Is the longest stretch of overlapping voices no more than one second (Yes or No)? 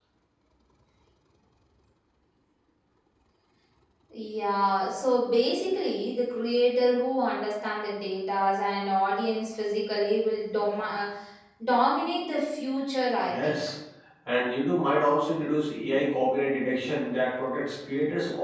Yes